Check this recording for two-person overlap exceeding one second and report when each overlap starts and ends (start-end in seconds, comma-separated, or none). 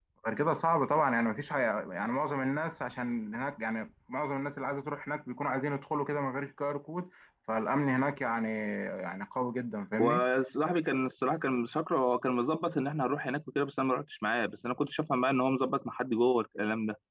none